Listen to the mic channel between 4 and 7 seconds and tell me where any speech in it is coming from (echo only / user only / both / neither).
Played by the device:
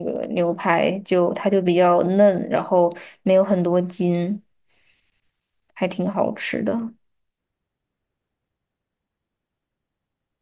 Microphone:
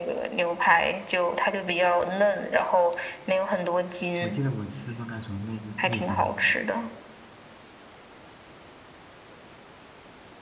both